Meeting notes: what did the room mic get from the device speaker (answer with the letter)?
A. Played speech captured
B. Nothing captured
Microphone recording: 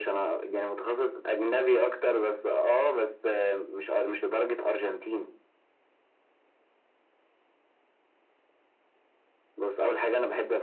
A